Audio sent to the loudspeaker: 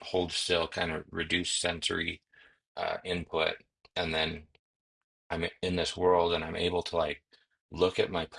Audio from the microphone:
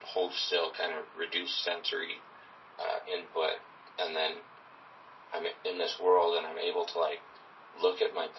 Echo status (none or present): present